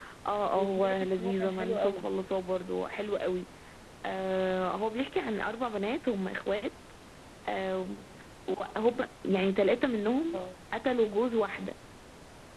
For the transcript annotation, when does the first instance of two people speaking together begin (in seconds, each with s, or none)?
0.5 s